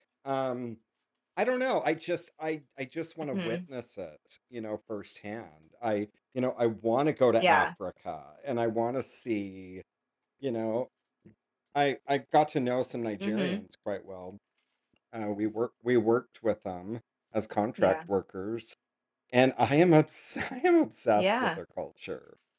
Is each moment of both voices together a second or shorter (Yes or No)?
Yes